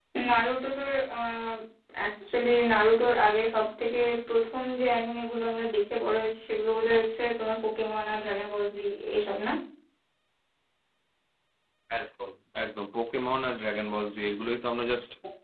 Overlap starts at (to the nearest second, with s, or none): none